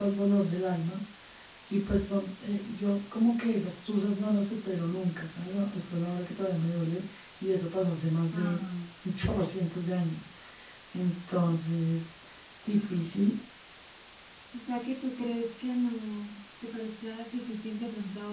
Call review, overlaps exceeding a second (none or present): none